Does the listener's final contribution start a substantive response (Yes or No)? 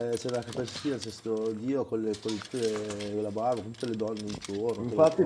Yes